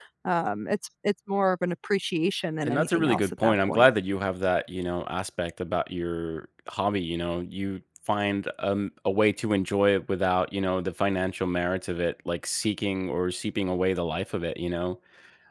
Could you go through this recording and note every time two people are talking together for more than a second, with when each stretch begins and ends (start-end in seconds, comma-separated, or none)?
2.6-3.8